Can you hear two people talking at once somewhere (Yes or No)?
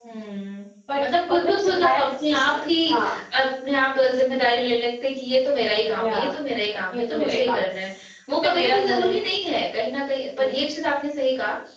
Yes